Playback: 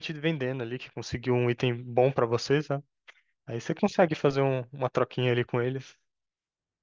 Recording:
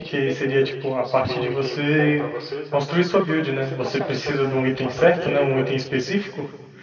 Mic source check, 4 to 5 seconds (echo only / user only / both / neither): both